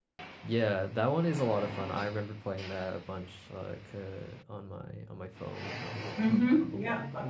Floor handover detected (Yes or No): Yes